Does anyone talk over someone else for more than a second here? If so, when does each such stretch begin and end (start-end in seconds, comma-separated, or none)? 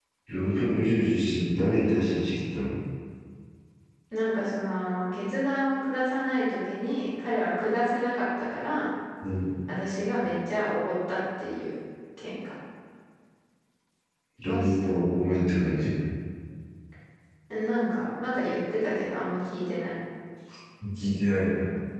none